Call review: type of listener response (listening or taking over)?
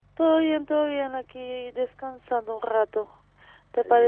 listening